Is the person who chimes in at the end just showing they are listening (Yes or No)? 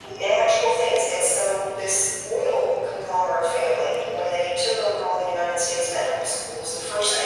Yes